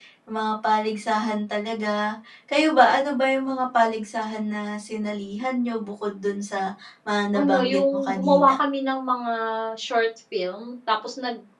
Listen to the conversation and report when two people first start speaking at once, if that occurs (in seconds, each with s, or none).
7.3 s